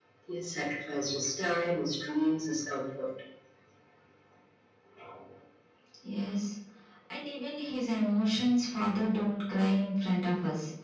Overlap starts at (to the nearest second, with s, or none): none